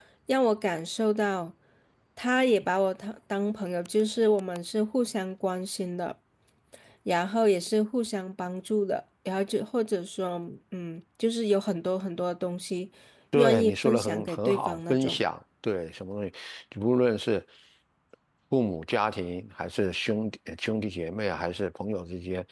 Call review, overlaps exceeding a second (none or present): present